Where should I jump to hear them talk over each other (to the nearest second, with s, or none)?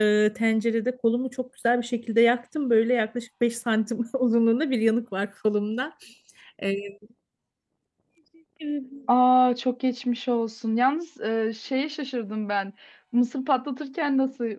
none